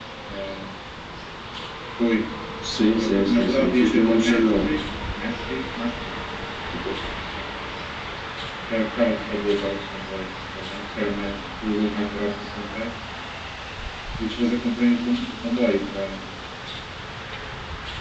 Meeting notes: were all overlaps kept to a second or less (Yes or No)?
No